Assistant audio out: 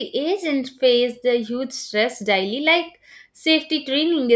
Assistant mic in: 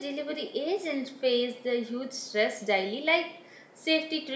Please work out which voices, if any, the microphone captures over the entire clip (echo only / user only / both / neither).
echo only